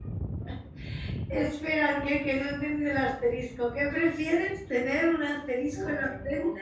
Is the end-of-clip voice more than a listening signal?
Yes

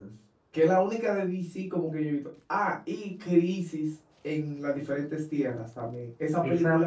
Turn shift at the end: Yes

